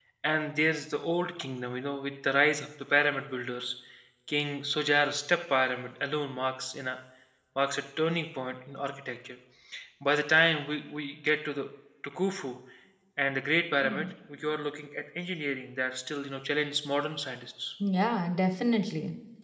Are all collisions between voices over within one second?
Yes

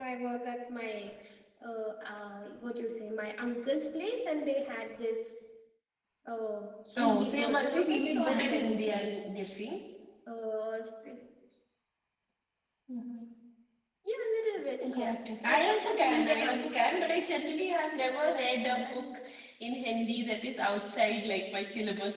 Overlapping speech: Yes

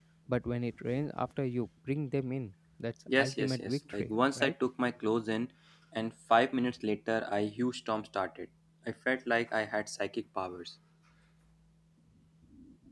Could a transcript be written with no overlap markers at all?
No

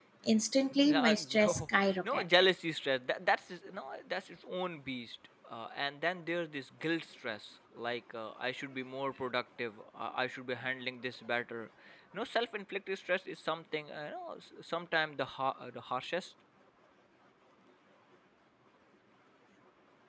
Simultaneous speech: Yes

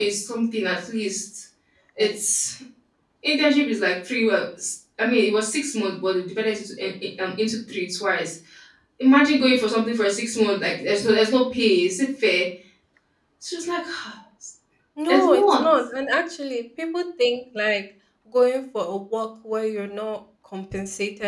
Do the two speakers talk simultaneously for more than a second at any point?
No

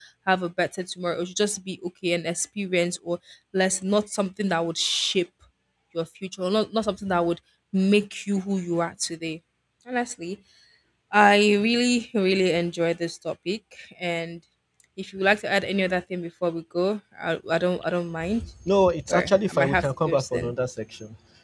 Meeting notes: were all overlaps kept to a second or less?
No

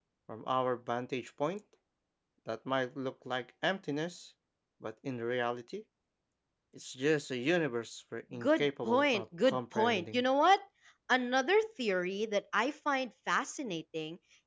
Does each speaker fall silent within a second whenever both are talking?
No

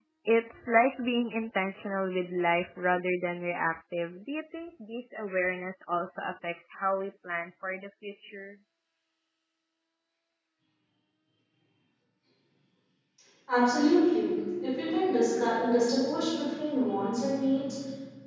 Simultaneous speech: No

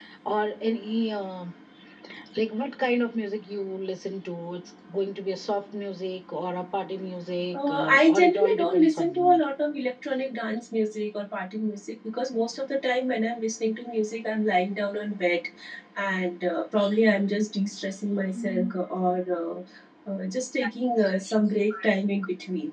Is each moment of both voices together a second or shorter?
No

